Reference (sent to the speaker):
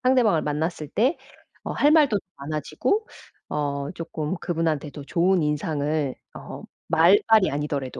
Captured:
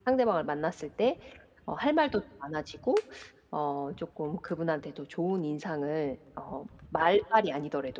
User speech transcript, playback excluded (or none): none